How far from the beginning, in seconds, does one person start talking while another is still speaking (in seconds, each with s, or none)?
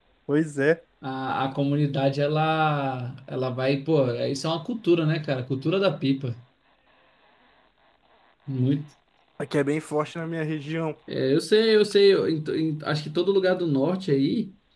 none